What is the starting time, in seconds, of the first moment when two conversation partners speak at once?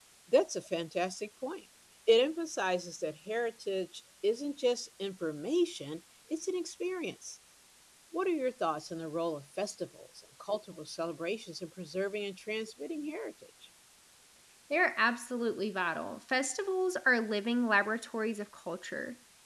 none

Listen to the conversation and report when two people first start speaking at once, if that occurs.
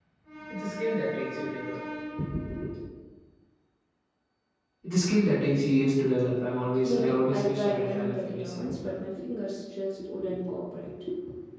7 s

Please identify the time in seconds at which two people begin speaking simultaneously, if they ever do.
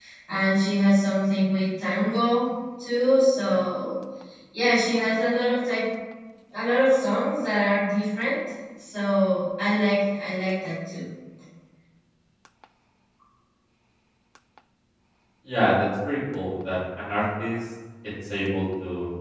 none

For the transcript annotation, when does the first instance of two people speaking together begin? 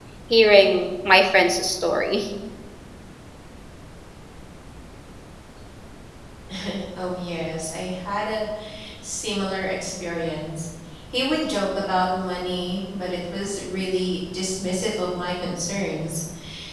none

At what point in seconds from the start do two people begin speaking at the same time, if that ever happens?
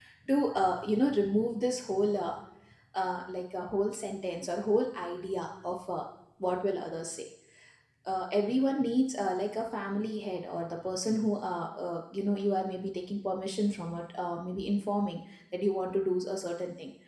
none

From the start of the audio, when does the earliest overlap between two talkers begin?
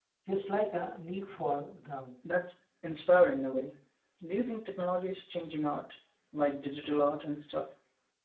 none

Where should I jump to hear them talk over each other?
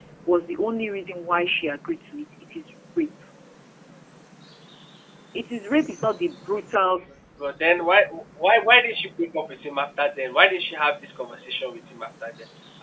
none

